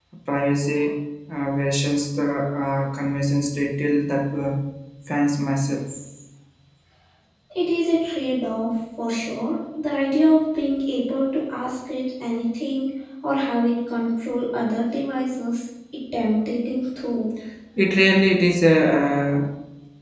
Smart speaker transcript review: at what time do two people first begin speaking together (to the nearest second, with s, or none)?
none